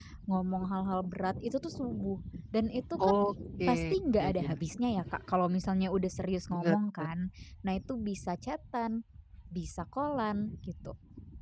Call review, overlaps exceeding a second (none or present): none